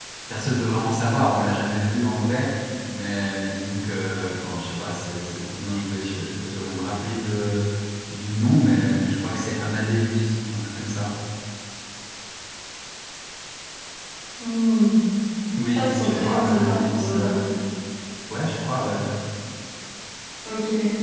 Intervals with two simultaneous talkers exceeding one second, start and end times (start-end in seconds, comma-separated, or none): 15.7-17.4